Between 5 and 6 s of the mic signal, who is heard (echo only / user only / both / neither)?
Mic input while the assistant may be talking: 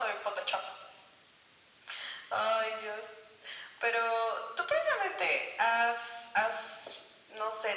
echo only